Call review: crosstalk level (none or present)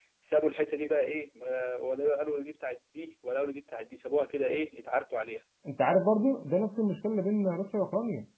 none